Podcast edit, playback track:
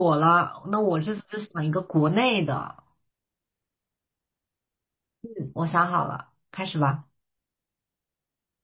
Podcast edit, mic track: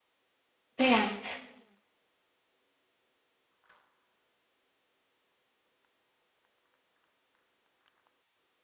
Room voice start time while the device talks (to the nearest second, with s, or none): 1 s